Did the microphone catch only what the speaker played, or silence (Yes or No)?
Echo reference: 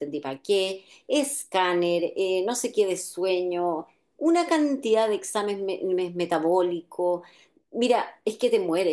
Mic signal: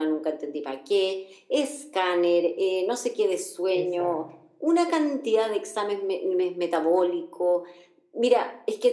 No